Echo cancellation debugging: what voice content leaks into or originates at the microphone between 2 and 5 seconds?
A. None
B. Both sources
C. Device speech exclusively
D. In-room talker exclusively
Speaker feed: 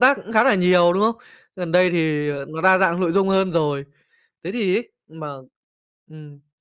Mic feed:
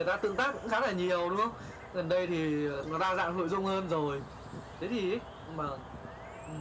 C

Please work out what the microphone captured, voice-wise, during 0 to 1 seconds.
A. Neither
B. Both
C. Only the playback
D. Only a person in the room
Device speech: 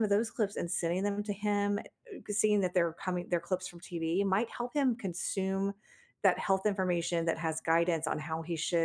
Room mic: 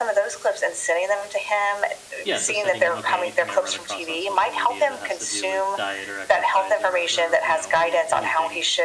C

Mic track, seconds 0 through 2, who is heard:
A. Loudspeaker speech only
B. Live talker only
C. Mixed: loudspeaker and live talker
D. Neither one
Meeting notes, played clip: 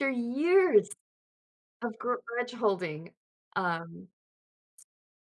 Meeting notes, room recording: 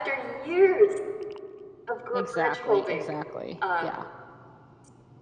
A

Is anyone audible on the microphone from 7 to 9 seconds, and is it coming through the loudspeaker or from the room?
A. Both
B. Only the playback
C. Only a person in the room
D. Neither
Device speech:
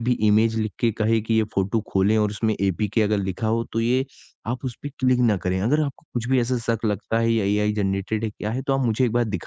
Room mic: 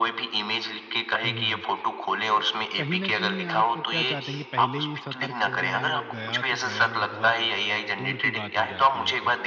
A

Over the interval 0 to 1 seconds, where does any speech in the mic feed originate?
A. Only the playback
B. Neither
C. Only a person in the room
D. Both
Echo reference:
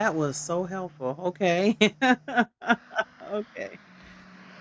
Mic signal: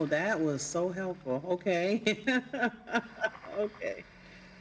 A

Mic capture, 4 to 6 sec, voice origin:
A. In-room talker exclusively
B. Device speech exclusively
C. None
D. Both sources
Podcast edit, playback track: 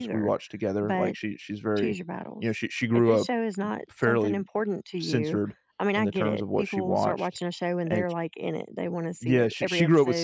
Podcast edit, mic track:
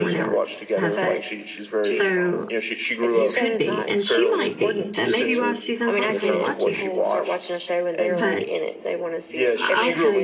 D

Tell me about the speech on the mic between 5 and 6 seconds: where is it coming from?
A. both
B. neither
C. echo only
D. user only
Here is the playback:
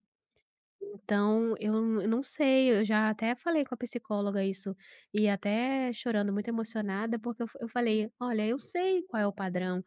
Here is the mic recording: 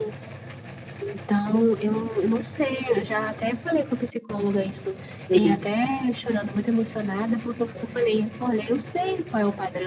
A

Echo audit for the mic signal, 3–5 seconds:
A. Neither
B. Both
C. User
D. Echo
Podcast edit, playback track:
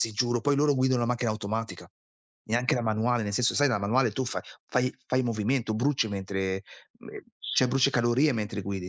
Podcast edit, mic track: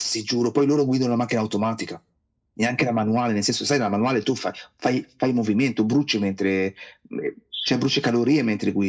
D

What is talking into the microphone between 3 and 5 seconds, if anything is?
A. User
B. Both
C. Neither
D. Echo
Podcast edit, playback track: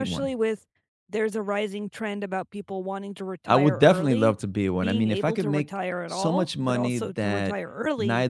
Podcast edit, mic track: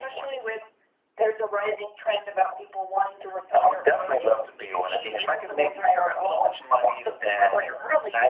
D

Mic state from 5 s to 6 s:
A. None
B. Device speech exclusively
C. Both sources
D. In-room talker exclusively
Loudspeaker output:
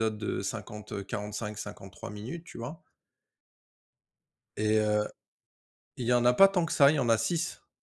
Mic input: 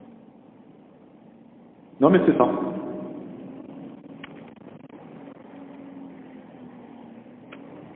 A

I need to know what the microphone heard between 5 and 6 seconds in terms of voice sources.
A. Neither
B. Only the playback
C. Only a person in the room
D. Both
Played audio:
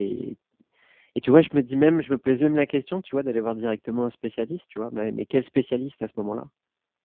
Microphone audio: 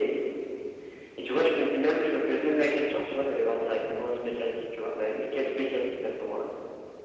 B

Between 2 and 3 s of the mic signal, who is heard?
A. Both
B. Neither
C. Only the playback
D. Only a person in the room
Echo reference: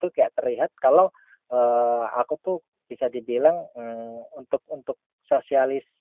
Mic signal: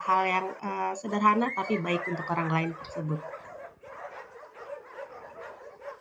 D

